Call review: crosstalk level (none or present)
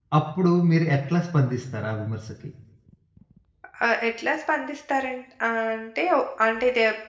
none